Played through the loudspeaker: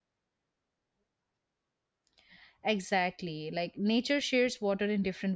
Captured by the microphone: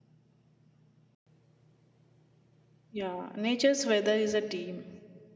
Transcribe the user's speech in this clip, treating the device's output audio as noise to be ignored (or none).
Yeah, nature's weather is a team.